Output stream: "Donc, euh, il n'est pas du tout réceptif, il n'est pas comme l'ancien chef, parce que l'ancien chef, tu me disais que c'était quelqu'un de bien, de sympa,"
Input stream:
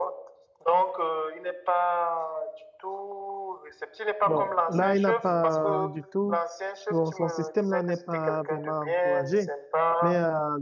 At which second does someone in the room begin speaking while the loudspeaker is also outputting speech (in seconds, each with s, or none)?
4.2 s